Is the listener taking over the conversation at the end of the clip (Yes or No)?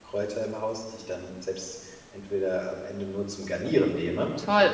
Yes